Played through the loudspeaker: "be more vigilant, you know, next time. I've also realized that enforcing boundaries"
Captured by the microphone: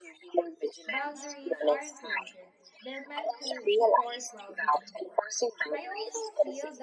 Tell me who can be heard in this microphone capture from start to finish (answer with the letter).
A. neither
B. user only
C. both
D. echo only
C